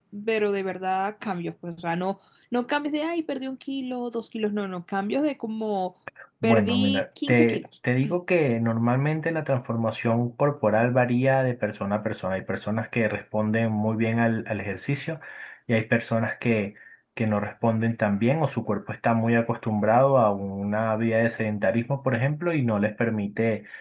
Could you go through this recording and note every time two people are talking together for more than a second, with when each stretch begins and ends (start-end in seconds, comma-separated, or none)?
6.4-7.7